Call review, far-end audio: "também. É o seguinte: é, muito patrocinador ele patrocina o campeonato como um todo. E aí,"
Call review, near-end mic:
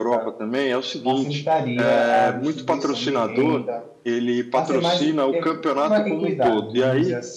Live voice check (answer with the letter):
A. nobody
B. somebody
B